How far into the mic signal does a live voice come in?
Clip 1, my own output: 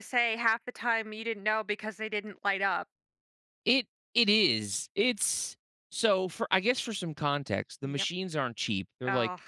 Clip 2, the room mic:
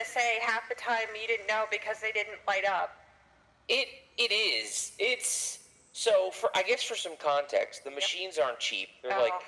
none

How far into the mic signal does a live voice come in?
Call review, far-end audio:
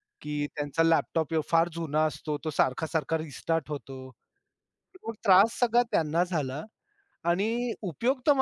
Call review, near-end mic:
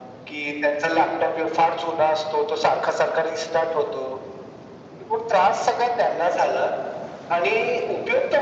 none

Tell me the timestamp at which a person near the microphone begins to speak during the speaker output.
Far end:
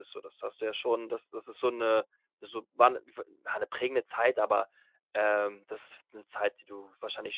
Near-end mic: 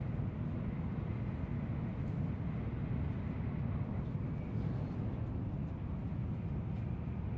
none

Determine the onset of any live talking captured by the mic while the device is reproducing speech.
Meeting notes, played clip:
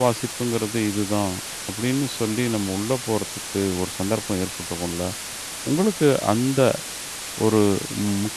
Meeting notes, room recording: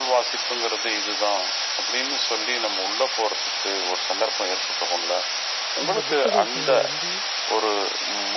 6 s

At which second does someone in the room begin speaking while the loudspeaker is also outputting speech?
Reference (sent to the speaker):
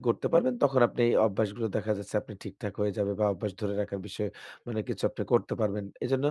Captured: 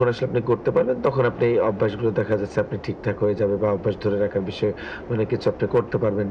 none

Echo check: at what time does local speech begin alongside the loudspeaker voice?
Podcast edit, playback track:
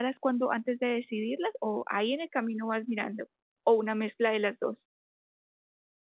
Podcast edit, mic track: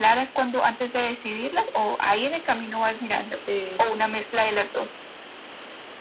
3 s

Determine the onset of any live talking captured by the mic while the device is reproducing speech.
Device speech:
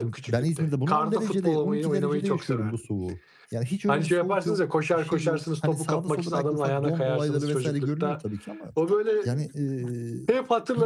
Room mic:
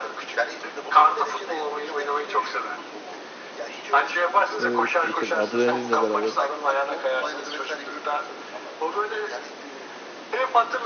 5 s

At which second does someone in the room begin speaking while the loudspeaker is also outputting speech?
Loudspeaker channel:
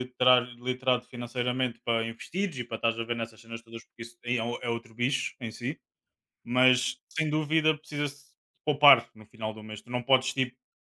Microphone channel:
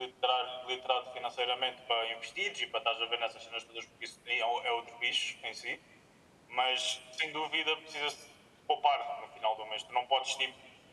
none

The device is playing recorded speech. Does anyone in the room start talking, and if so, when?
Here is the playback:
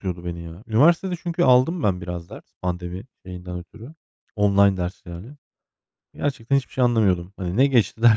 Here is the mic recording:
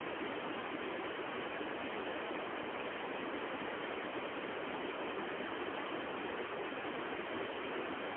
none

